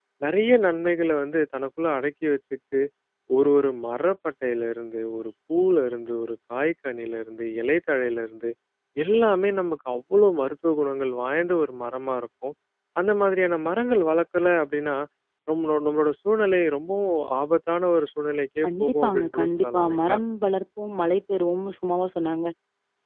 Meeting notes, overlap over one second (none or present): present